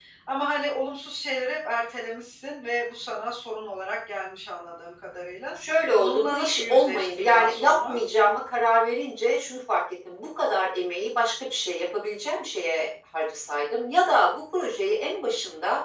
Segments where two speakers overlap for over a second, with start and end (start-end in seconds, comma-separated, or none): 6.0-8.0